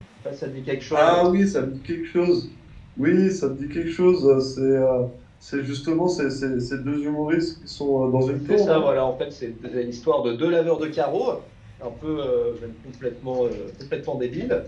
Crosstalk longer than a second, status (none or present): none